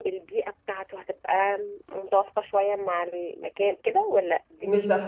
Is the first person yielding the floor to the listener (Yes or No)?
Yes